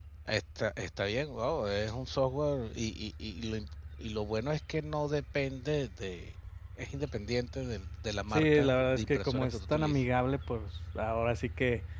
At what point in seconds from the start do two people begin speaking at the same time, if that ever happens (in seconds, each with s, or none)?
8.3 s